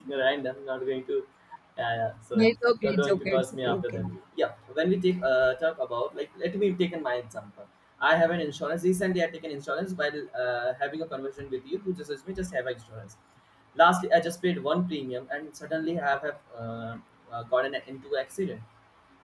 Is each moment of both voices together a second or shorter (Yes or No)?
No